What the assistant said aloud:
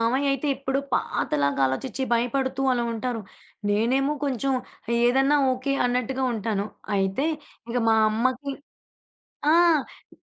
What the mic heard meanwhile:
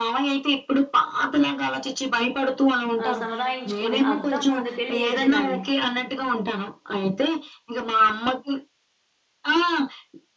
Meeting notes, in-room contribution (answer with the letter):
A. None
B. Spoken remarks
B